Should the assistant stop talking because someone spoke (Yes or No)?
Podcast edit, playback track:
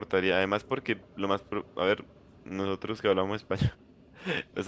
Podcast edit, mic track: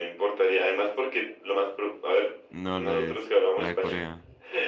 Yes